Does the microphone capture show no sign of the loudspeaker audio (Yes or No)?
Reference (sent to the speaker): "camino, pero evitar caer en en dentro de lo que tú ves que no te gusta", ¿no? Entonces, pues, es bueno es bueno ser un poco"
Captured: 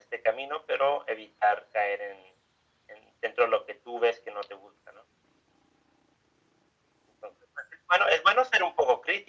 No